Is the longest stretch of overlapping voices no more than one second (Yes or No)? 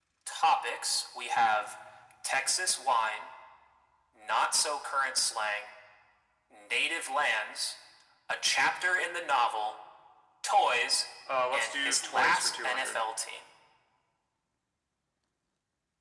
No